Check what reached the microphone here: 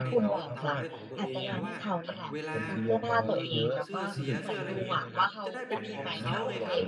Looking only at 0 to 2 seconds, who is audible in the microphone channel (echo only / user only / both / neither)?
both